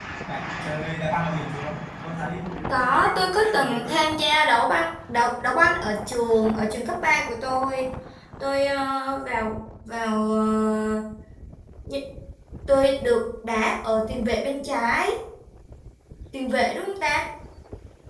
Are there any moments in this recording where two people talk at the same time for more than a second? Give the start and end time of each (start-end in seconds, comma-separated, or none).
2.7-4.0